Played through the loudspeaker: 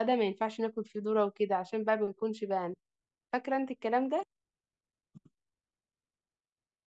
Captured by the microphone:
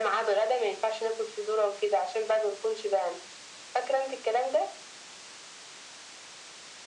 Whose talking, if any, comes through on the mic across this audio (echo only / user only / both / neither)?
echo only